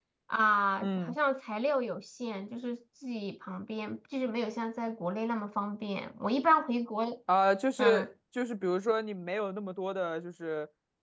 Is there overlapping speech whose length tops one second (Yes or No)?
No